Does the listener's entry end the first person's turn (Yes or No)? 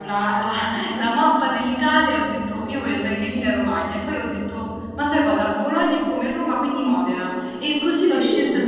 No